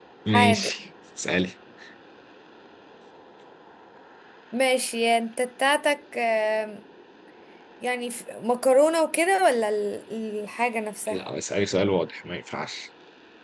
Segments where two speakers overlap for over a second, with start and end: none

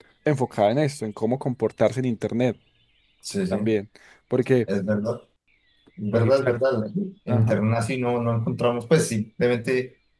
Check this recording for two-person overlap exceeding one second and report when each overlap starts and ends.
none

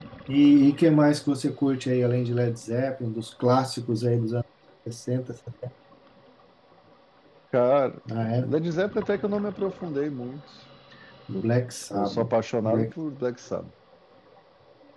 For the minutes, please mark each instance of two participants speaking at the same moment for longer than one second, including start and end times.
none

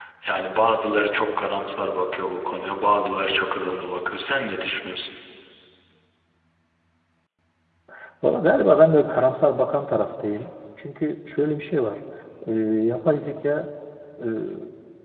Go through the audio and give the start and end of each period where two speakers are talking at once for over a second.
none

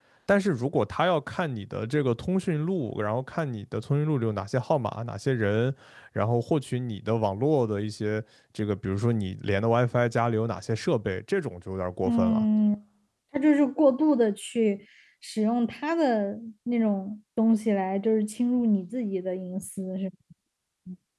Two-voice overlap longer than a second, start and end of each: none

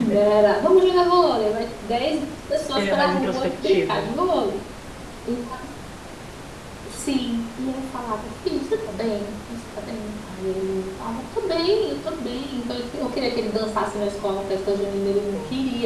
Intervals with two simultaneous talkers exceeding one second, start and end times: 2.8-4.2

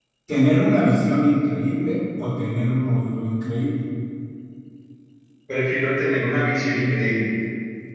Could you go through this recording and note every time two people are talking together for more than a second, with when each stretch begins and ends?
none

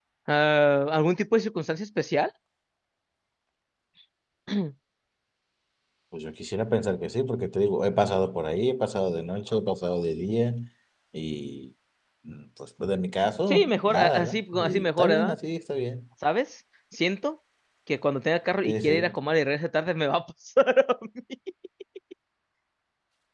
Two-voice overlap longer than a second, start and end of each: 13.5-15.3

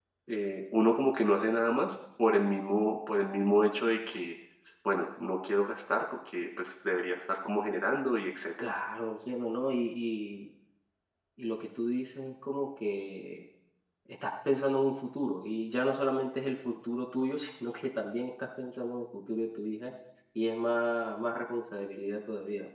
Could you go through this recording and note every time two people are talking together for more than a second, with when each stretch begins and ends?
none

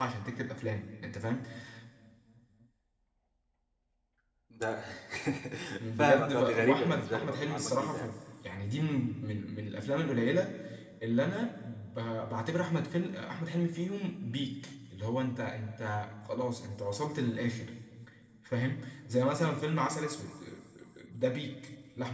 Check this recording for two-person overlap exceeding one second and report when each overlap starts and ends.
6.0-8.1

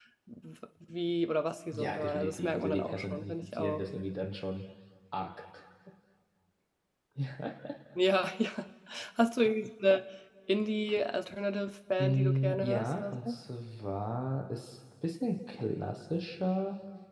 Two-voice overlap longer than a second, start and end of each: 1.7-3.8, 12.0-13.4

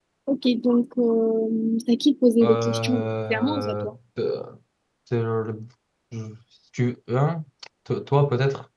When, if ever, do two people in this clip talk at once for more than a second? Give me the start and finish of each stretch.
2.4-3.8

